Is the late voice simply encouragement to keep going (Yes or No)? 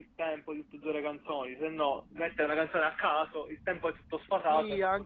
No